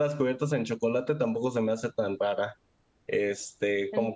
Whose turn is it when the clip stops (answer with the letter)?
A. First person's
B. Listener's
A